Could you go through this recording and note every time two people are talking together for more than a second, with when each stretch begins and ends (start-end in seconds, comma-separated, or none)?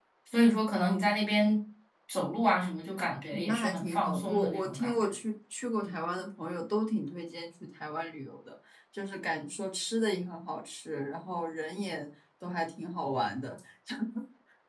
3.3-5.1